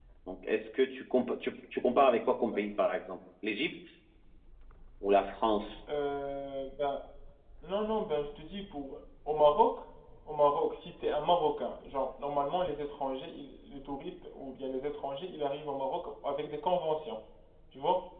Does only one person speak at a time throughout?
Yes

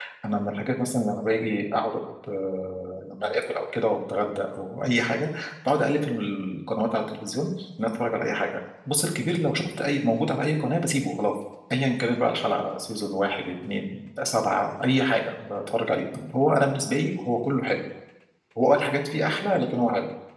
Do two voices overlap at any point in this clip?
No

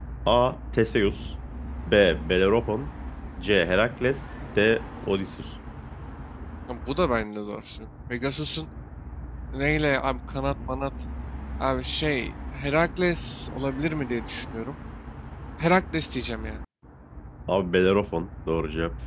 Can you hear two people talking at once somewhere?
No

